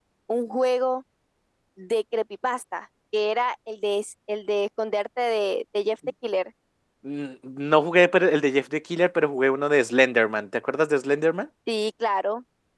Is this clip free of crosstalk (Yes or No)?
Yes